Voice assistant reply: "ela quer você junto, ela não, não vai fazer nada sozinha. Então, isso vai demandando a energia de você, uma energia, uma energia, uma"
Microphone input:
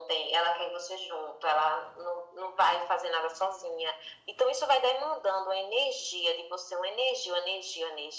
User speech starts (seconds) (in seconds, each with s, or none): none